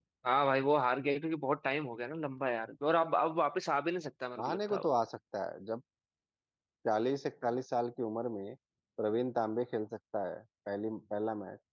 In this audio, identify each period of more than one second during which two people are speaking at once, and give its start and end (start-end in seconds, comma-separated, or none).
none